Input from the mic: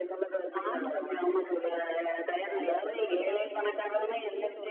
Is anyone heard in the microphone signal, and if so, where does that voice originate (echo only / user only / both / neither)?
both